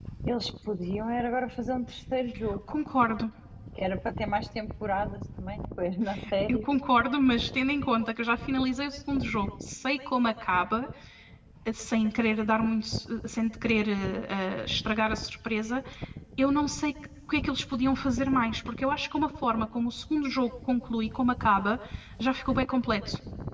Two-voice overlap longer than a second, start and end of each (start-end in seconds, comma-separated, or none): none